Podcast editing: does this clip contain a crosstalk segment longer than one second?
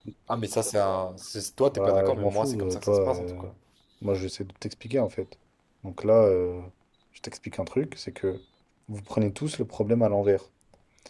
Yes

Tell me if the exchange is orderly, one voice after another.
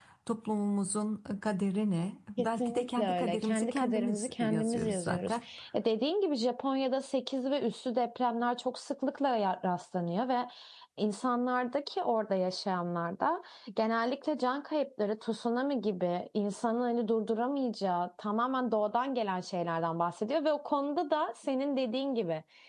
No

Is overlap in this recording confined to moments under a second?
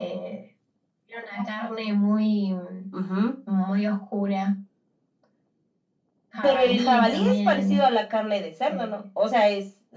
No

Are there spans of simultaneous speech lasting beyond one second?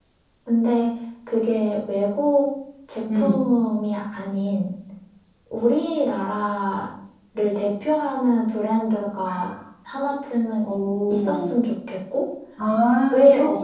No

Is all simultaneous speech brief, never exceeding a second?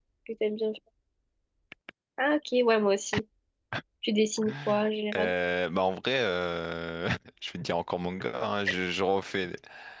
Yes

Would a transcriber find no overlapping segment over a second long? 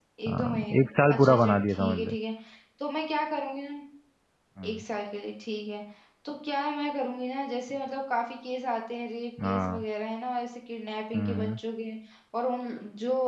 No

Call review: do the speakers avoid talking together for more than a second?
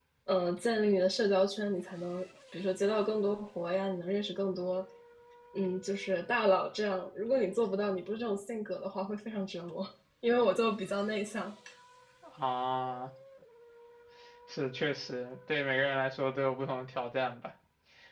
Yes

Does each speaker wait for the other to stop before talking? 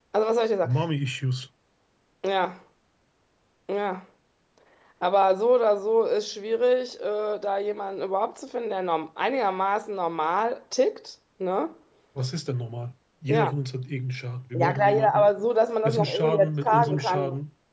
No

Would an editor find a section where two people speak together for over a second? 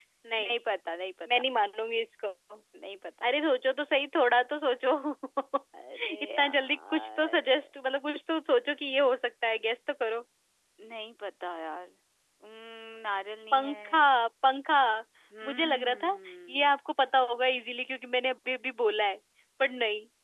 Yes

